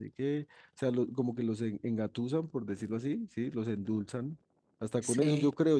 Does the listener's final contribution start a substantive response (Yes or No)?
No